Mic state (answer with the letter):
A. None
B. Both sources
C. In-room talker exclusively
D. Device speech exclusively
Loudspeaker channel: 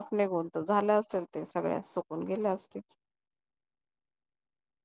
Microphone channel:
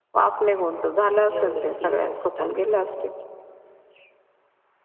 B